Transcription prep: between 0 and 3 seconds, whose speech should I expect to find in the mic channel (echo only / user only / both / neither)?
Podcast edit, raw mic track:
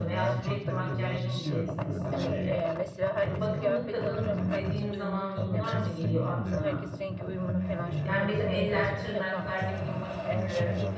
both